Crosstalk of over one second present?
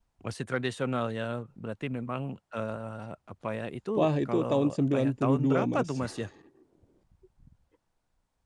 Yes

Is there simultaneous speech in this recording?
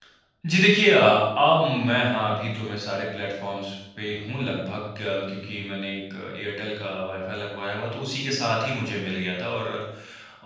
No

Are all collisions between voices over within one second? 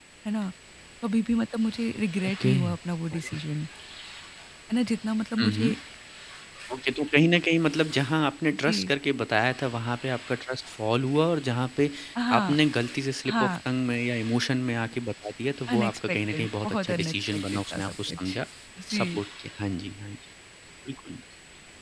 No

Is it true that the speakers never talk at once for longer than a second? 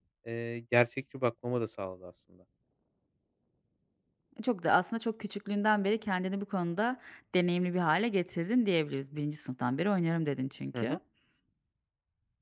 Yes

